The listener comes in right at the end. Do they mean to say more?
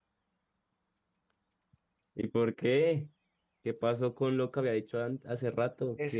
Yes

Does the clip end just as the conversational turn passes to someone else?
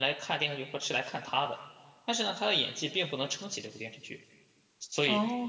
No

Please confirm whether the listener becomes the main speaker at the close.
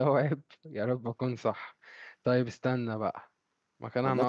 Yes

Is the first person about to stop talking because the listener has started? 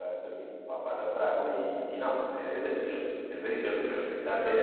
No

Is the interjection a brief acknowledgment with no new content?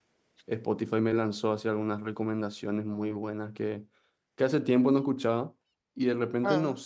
Yes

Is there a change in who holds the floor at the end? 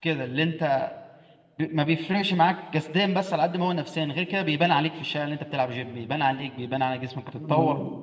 Yes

